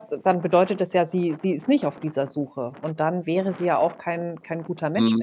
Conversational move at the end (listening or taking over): taking over